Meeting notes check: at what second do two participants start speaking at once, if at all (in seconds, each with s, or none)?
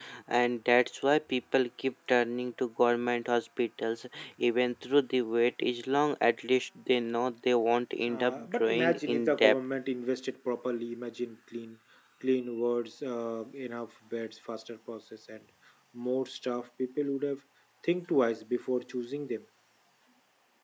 8.1 s